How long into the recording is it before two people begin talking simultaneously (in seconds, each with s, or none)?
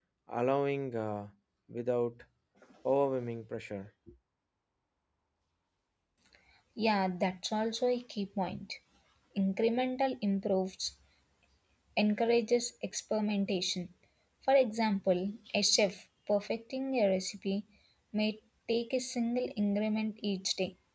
none